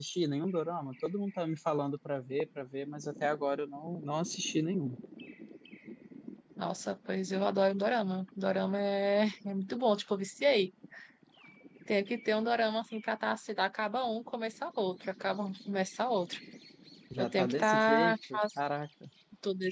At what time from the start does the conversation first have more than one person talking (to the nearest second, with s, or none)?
17 s